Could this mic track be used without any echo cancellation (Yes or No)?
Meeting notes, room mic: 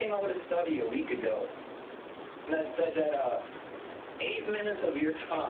No